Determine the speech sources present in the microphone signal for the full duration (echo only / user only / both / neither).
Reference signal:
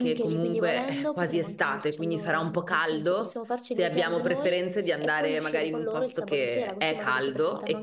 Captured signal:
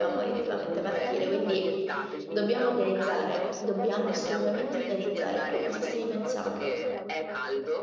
both